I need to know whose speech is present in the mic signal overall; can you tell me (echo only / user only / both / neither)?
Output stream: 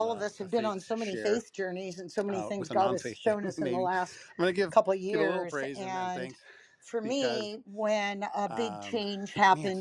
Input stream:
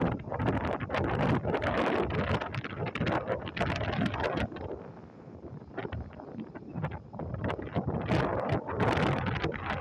neither